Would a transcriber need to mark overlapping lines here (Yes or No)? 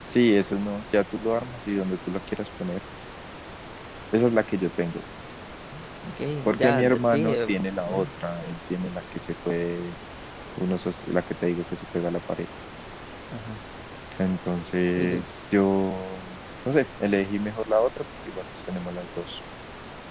Yes